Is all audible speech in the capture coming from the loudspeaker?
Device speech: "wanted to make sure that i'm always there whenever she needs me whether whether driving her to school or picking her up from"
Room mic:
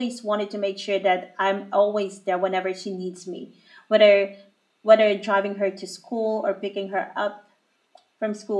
Yes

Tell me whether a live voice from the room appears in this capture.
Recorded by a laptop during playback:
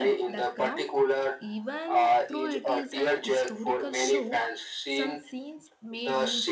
Yes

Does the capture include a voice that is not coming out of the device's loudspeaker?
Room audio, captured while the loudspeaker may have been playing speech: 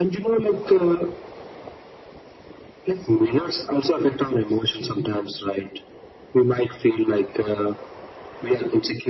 No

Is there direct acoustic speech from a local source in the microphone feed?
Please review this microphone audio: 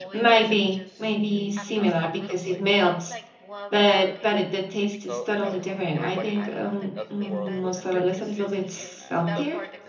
Yes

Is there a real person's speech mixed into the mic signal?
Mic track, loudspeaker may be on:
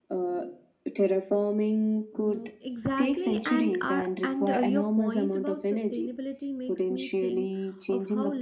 Yes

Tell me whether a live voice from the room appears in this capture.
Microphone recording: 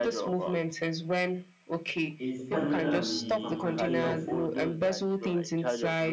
Yes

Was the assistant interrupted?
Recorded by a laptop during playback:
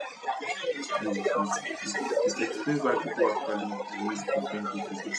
Yes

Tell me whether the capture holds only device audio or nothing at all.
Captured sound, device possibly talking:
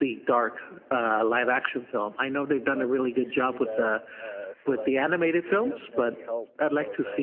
No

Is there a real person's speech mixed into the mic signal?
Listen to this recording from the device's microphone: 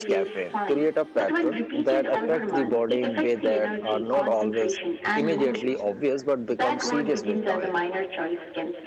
Yes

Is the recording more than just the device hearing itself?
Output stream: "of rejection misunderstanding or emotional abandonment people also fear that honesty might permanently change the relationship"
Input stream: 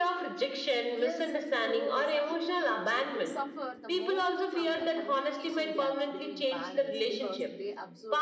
Yes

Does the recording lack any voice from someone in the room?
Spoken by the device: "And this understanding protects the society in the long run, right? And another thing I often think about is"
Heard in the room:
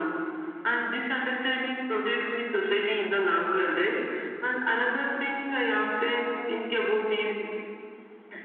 Yes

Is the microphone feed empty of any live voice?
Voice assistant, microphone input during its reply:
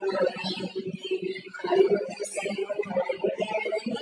Yes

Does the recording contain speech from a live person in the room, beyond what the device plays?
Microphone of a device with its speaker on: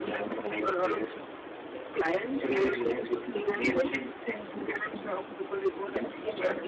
No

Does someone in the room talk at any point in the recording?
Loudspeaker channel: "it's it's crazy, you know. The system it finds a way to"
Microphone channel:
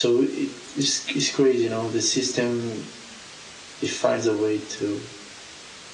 No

